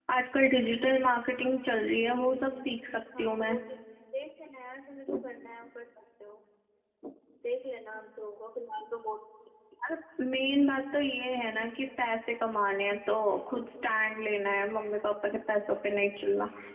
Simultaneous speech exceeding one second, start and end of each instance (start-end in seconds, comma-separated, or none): none